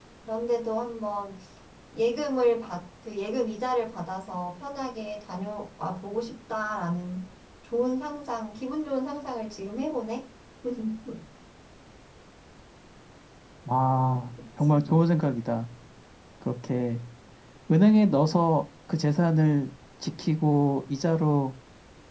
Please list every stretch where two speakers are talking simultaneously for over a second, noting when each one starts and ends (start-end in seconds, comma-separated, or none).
none